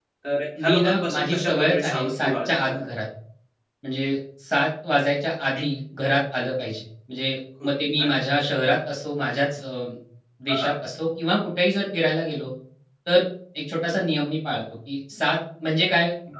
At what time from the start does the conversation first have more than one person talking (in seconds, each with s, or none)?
0.7 s